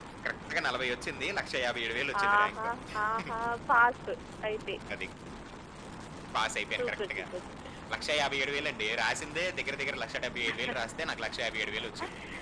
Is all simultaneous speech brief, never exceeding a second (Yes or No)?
Yes